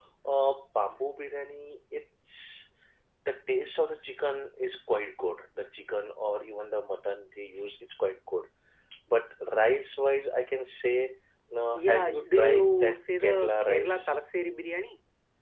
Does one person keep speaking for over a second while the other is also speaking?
Yes, from 11.7 s

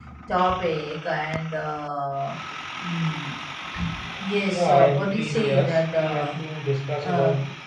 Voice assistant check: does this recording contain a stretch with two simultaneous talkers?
Yes, from 4.4 s

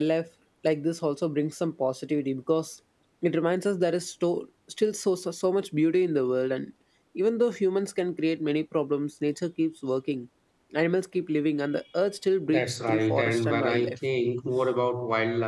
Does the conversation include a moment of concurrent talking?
Yes, from 12.5 s

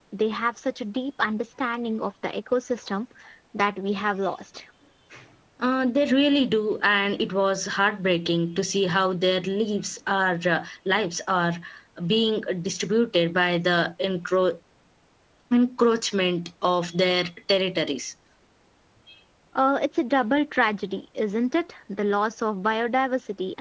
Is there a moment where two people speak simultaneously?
No

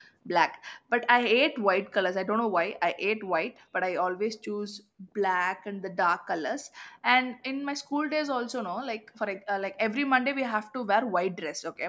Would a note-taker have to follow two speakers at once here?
No

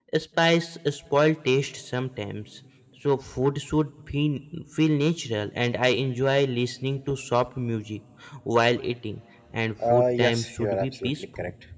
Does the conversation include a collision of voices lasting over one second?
Yes, from 9.8 s

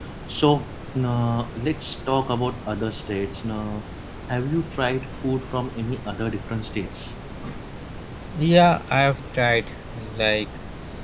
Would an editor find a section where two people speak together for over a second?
No

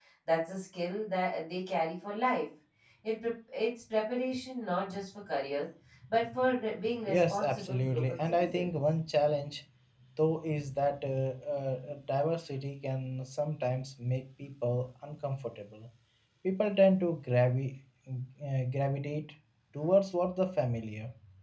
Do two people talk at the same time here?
Yes, from 6.9 s

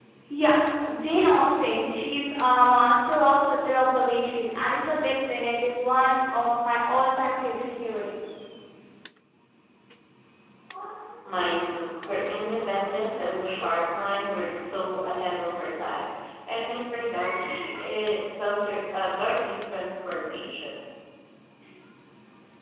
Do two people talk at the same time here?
No

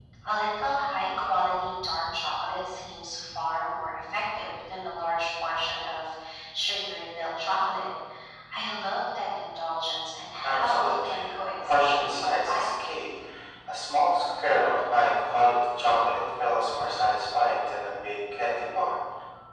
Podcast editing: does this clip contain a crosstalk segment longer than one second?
Yes, from 10.4 s

